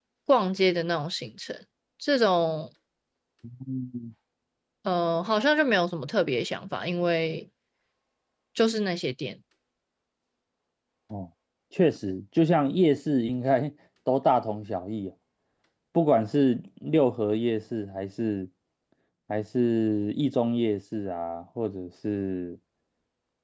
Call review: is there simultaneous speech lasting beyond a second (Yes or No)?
No